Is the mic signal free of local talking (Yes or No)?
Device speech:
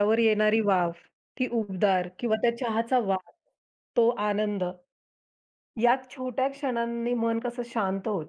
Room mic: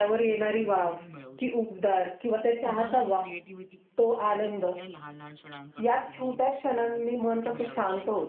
No